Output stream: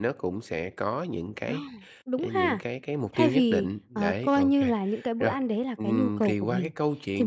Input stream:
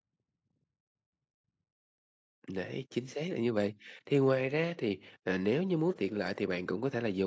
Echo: none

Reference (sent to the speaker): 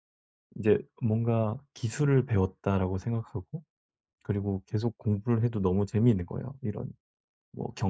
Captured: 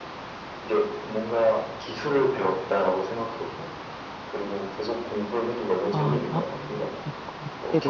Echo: present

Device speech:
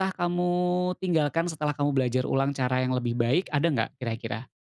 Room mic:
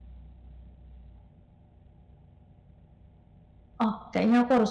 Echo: none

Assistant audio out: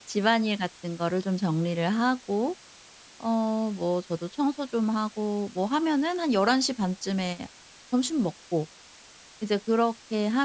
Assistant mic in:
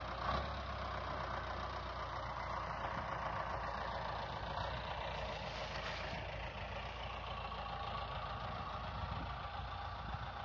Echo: none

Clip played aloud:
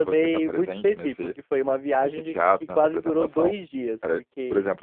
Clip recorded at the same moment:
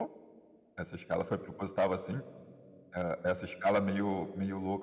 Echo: none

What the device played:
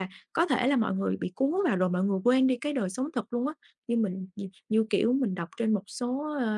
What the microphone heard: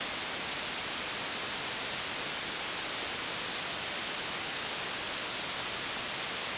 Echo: none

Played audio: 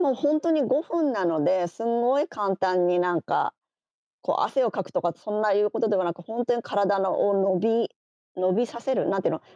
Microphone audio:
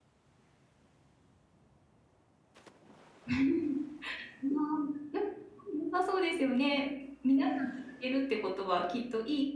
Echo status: none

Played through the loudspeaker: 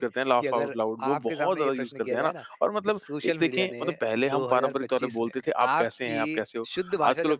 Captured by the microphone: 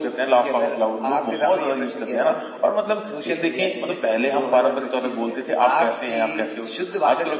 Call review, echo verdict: present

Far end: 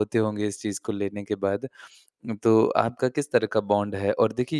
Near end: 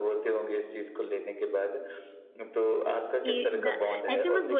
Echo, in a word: present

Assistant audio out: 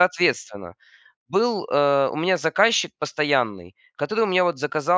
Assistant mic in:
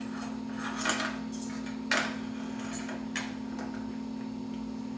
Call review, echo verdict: none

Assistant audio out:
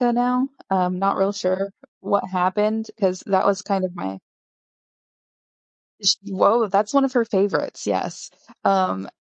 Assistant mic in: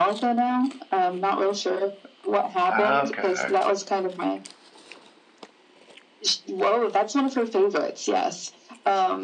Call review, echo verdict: present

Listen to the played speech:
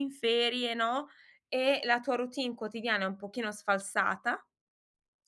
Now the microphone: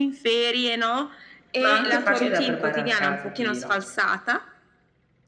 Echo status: present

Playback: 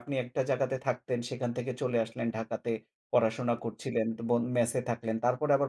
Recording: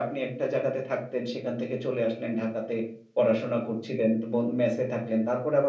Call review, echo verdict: present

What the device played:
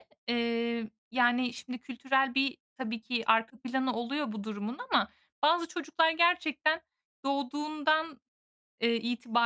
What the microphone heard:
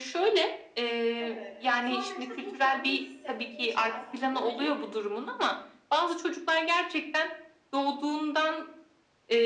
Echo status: present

